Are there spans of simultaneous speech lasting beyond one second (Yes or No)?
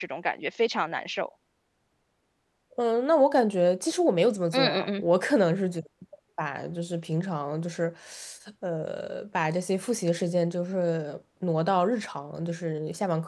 No